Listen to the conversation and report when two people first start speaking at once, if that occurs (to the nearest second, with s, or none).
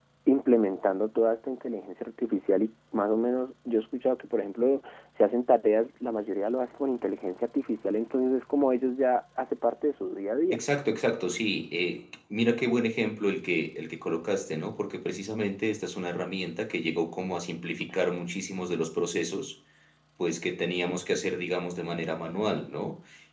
none